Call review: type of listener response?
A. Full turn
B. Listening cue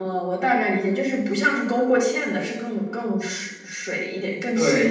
A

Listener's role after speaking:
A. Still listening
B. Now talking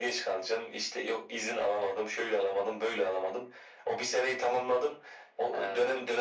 A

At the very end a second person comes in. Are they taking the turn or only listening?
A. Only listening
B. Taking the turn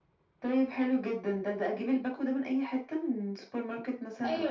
B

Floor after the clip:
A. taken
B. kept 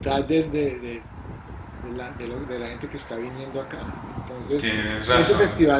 B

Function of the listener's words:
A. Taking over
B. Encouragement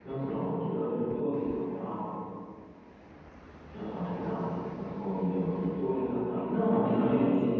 A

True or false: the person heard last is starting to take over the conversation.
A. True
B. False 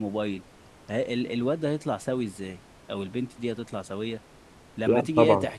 B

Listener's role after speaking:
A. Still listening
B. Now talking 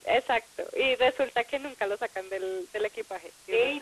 B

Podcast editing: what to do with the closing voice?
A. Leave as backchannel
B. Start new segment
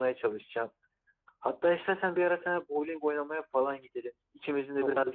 A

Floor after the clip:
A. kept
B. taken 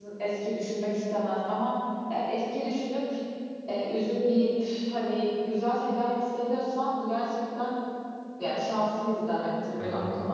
B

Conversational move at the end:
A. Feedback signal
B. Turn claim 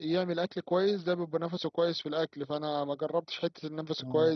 A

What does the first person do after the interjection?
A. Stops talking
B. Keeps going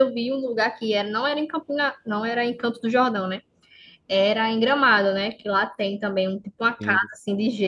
B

